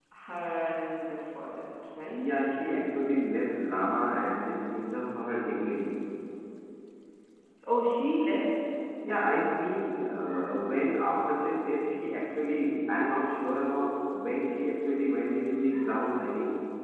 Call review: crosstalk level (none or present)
none